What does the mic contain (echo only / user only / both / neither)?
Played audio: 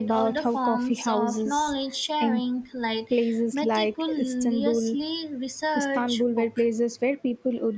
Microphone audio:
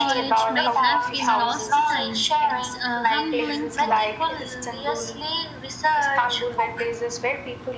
both